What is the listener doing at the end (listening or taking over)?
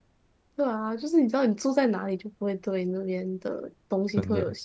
listening